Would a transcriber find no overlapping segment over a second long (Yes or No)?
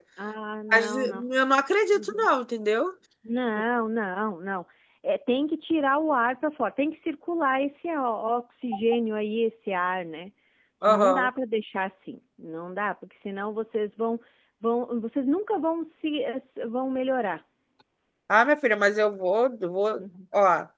Yes